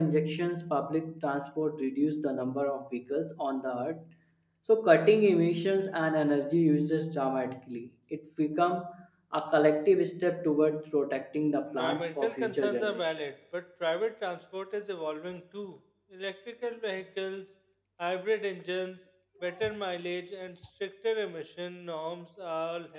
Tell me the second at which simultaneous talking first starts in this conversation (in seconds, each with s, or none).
11.7 s